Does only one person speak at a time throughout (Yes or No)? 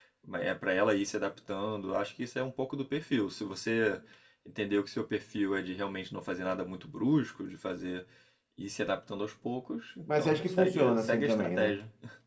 No